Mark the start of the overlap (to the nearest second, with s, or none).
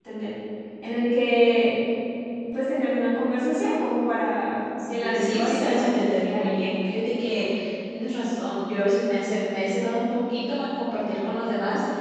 5 s